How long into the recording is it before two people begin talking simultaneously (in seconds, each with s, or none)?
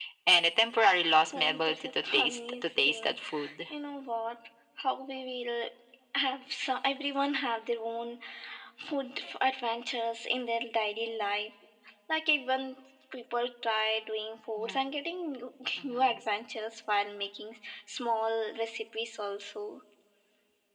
1.3 s